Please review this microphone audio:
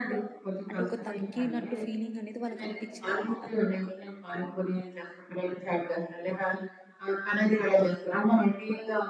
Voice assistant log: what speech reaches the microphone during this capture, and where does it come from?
both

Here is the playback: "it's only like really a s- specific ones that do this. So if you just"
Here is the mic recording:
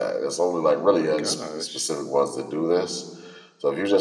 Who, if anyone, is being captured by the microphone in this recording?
both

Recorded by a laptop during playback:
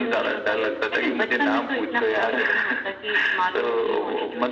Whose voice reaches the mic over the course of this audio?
echo only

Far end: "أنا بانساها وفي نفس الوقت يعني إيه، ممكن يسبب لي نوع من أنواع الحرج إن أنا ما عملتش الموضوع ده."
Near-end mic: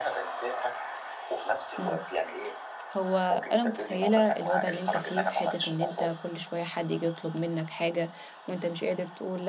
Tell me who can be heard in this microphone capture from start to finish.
both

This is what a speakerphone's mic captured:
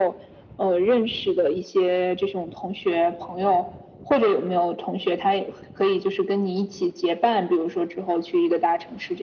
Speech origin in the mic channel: echo only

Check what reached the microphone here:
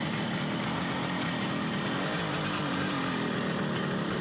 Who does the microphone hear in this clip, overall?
neither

